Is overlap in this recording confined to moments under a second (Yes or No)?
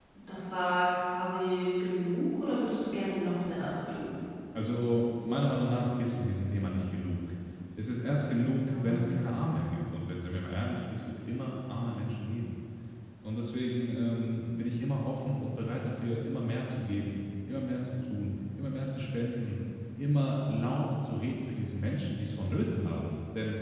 Yes